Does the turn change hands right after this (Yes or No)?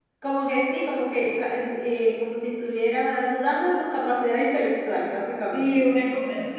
Yes